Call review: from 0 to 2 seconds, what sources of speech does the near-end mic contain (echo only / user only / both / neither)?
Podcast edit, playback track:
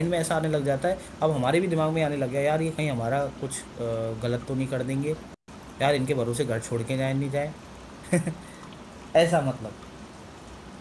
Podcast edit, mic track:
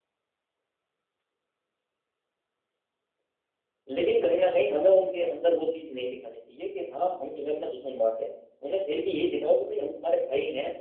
neither